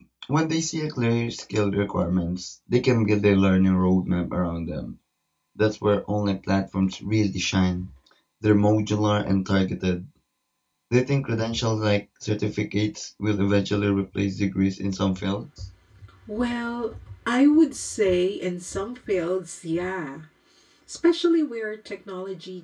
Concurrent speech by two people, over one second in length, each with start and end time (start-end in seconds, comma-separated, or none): none